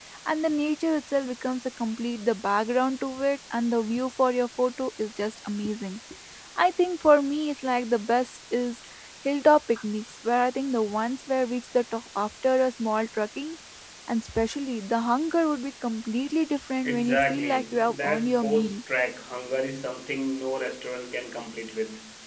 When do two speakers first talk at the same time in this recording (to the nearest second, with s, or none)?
17 s